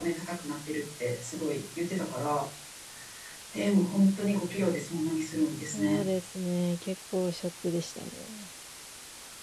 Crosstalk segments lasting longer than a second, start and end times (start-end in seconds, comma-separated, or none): none